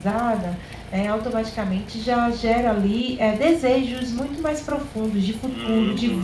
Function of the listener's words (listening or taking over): taking over